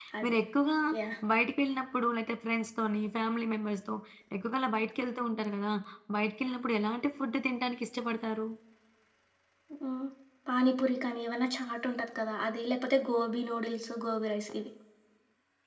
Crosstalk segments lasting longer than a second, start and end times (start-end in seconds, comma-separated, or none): none